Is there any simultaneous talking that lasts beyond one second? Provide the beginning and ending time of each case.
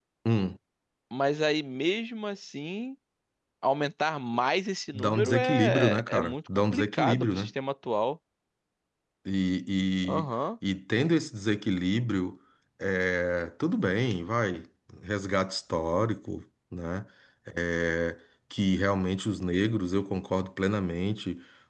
4.9-7.5

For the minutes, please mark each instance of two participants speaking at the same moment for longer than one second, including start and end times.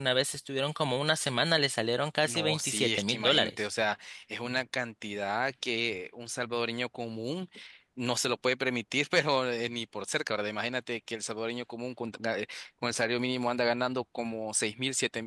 2.2-3.6

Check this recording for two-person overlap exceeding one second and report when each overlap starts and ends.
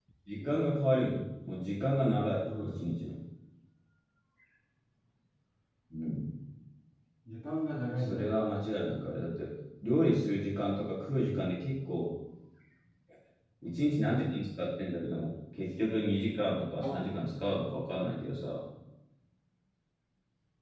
none

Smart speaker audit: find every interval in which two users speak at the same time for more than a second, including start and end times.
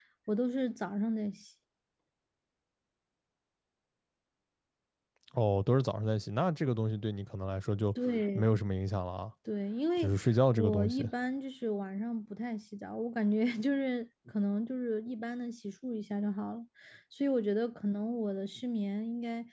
none

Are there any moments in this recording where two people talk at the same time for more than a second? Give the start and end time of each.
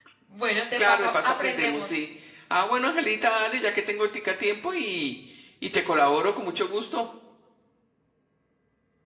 0.8-2.0

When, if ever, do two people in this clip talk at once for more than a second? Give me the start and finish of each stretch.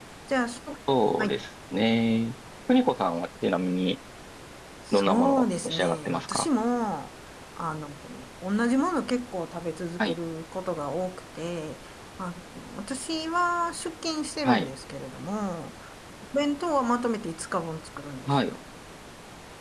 4.9-6.5

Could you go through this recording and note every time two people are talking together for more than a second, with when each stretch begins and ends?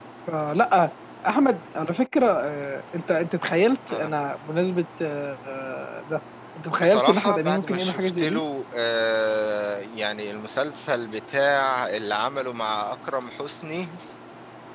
6.8-8.4

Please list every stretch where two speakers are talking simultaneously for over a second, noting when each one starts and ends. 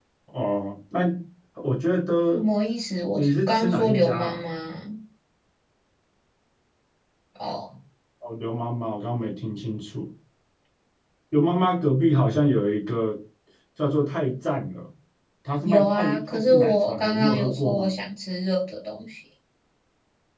3.1-4.4, 15.6-17.9

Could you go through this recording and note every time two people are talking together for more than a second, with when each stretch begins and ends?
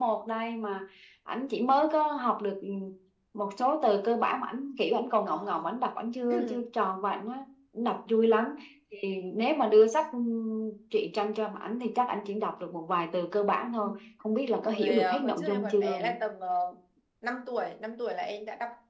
14.6-16.1

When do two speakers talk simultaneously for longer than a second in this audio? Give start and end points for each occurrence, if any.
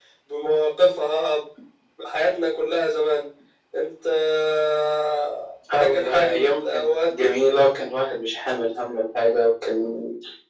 5.8-7.3

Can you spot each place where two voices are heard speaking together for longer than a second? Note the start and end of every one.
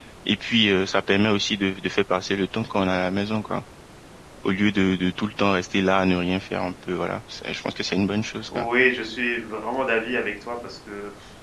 none

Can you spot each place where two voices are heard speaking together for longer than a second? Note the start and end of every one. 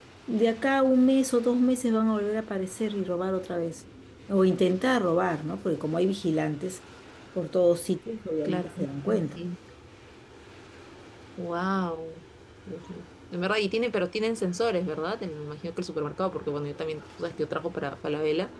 none

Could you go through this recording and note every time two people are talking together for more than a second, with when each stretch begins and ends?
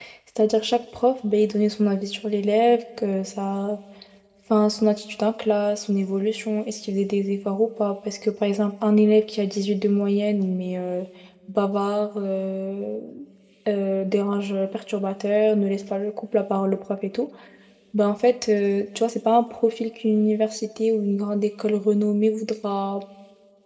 none

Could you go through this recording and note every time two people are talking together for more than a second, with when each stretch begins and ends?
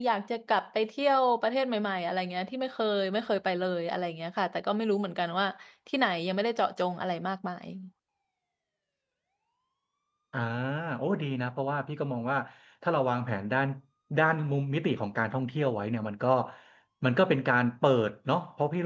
none

